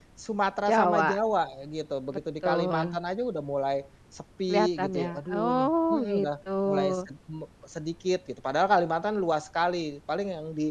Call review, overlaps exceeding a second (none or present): present